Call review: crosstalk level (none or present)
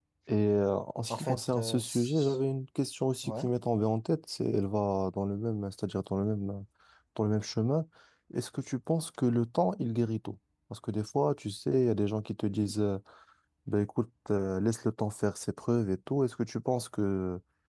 present